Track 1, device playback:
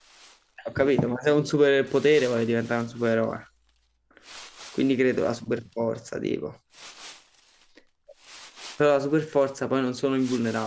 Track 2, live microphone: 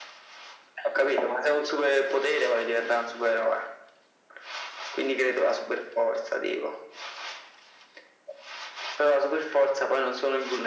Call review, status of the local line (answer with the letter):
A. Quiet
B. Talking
A